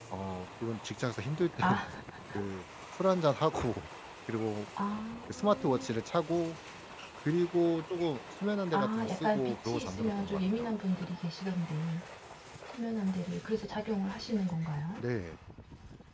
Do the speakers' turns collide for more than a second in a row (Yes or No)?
Yes